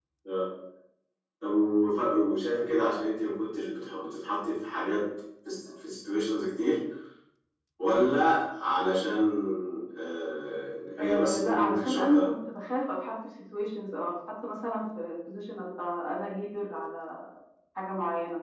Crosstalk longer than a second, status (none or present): present